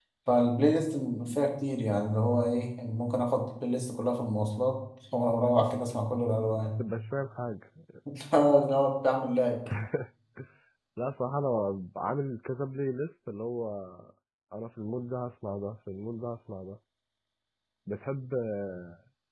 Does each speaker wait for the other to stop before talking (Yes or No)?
Yes